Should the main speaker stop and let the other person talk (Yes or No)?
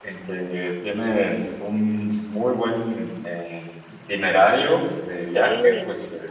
No